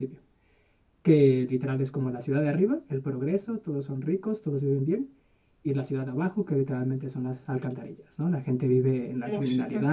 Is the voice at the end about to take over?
No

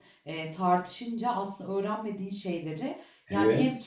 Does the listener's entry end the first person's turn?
No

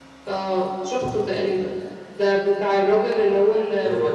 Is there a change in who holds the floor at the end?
No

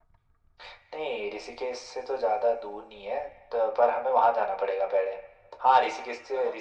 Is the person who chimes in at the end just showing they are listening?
Yes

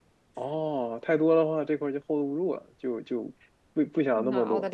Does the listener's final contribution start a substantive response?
Yes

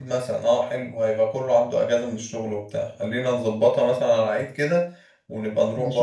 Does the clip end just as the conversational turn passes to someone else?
Yes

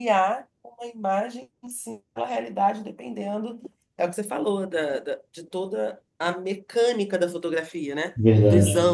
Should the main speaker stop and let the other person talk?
No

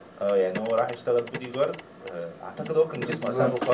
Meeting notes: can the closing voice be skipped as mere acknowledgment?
No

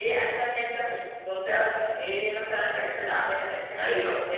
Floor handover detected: No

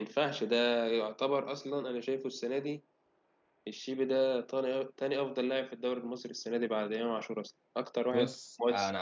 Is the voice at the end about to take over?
Yes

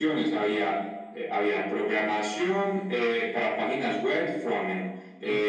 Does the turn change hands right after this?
No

